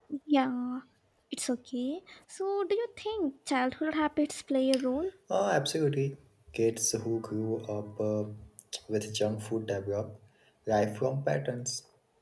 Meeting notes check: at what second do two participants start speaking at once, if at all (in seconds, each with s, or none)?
none